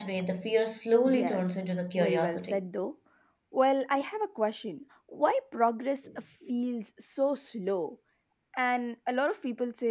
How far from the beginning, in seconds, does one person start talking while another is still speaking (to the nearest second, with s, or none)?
1 s